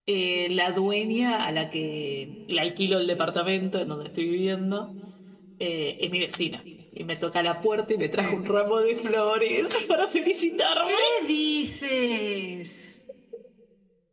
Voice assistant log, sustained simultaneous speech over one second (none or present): none